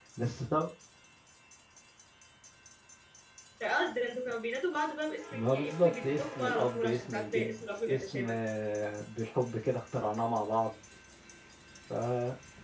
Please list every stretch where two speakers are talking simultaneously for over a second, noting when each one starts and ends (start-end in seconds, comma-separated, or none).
5.3-8.3